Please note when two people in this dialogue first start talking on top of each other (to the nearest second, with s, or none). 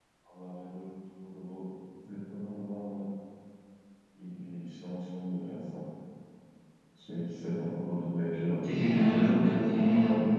9 s